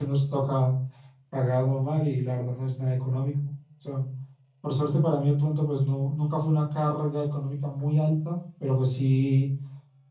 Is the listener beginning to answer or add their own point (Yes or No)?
No